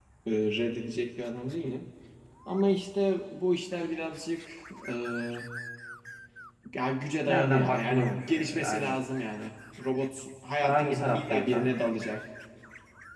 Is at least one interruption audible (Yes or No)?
Yes